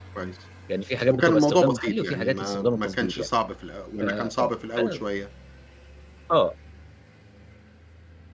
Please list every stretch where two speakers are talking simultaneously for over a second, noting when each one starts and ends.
1.1-3.3

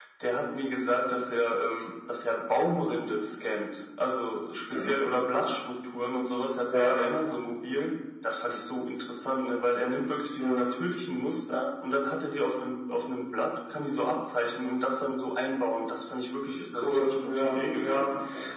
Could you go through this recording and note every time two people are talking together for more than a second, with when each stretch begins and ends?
16.8-18.0

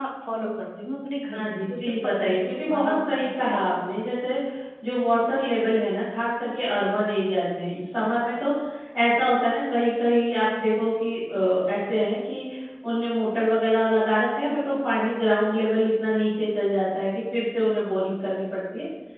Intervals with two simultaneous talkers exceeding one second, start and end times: 1.4-3.5

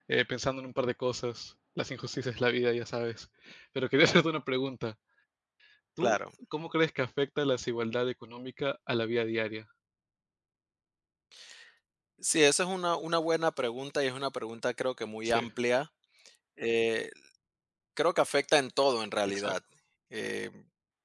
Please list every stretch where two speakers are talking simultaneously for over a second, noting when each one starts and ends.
none

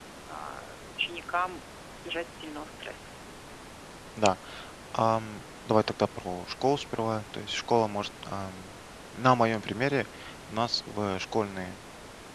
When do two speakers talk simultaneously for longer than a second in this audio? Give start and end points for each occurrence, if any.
none

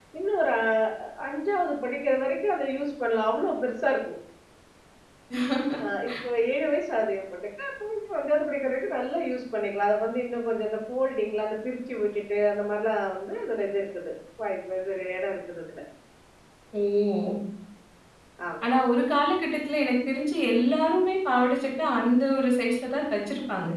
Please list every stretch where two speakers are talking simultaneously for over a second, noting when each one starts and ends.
none

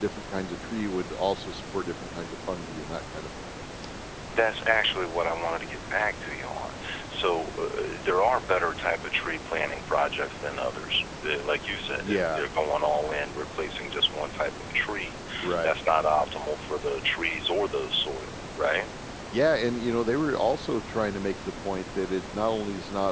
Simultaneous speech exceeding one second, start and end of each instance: none

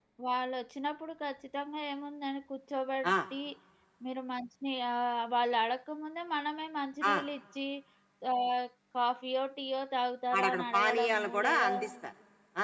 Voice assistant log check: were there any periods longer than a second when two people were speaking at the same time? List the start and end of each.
10.4-11.7

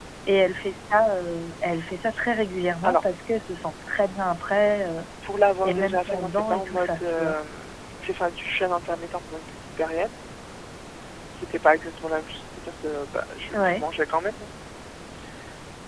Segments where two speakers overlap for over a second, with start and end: 5.6-7.3

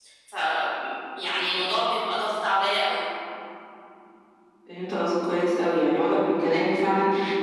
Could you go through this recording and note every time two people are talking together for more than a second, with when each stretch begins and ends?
none

